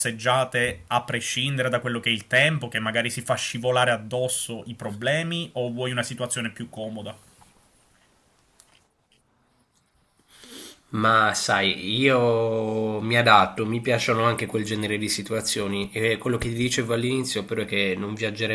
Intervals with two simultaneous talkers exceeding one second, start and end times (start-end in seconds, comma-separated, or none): none